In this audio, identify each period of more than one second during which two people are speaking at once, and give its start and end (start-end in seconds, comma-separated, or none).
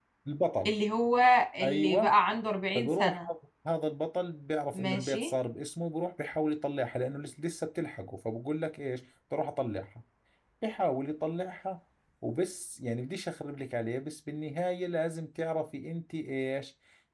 none